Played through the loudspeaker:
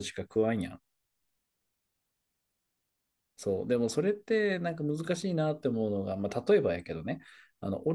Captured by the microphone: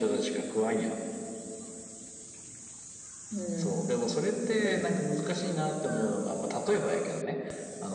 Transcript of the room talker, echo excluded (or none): うん、うん。